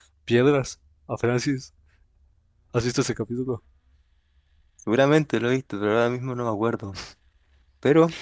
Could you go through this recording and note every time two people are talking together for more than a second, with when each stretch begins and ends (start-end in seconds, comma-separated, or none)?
none